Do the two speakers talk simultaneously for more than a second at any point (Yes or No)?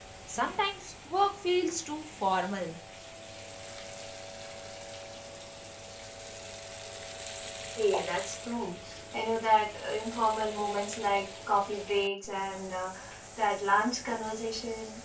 No